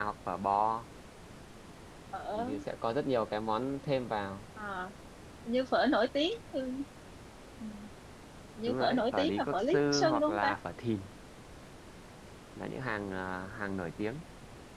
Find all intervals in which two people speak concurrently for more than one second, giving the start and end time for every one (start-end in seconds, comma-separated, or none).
8.7-10.5